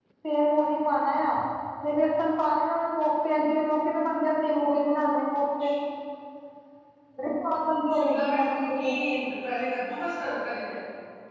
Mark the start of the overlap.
7.9 s

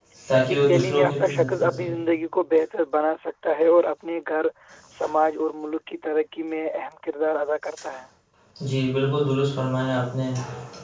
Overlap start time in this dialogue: 0.5 s

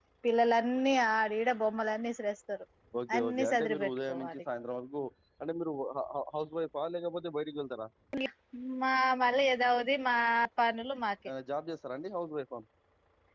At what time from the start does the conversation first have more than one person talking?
3.2 s

